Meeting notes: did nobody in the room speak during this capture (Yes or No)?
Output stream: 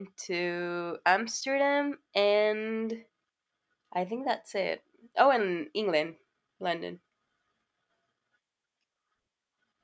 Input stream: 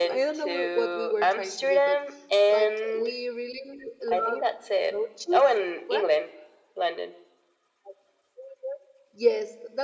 No